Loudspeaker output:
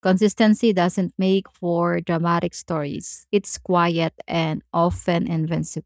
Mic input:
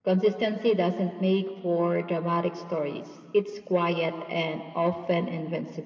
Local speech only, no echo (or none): none